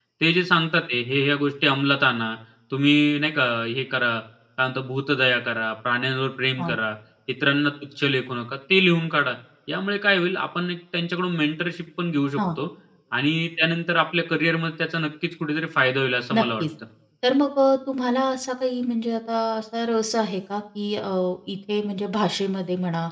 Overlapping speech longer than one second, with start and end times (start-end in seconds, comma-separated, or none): none